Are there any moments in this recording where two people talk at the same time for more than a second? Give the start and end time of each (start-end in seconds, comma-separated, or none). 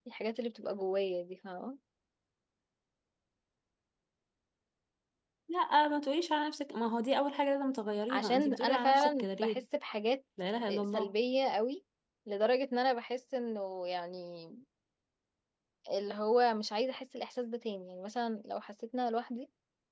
8.1-9.6